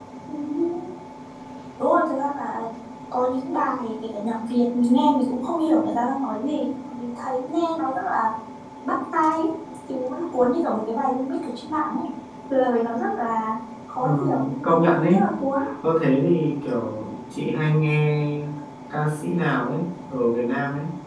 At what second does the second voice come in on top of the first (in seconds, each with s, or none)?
14.0 s